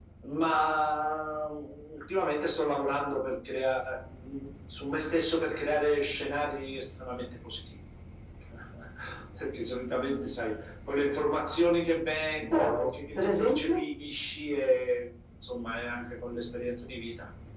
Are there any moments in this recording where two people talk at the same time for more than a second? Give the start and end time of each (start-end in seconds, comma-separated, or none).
12.4-13.8